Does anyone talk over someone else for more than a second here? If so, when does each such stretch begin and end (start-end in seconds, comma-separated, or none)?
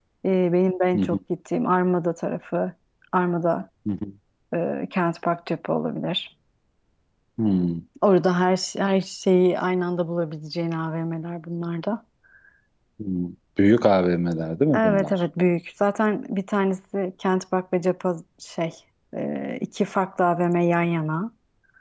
none